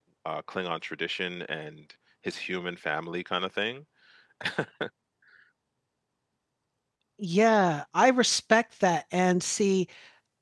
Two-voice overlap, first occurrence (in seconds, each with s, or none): none